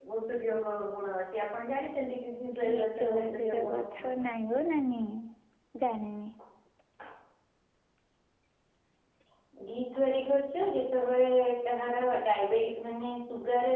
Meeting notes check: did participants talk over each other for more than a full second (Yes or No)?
Yes